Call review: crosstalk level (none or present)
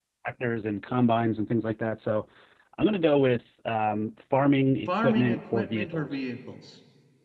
present